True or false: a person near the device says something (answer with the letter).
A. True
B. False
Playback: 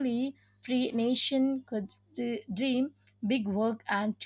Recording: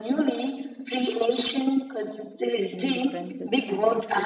A